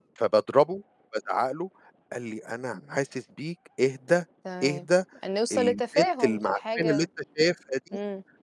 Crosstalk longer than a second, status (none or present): present